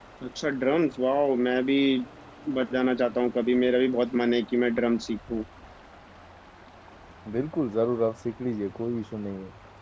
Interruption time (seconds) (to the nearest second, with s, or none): none